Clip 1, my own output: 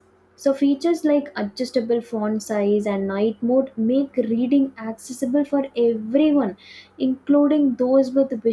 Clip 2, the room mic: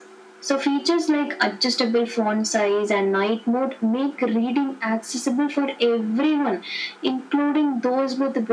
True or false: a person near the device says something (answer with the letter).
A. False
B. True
A